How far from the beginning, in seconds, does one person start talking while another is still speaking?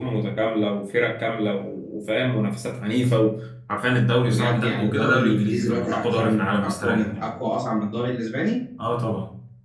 4.2 s

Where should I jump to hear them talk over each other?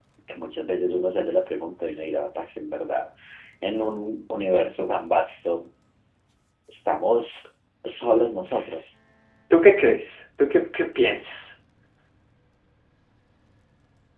none

